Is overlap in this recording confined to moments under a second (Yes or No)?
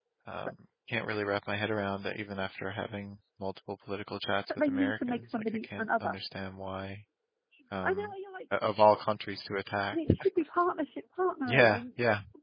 No